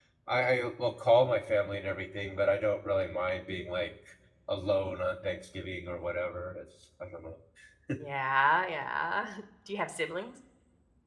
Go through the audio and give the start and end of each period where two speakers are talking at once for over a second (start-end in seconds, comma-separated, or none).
none